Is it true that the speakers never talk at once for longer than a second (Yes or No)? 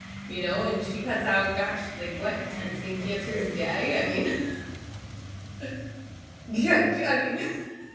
No